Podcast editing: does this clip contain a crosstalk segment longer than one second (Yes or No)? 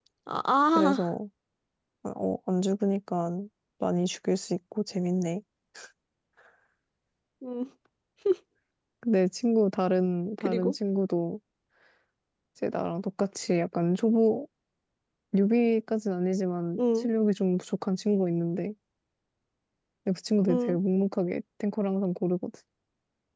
No